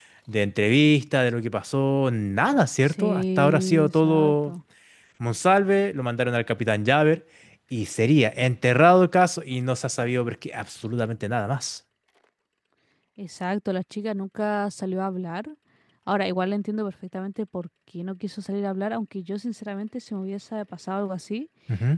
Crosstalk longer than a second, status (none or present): present